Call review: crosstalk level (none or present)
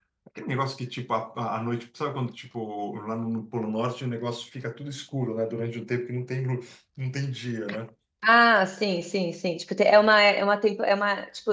none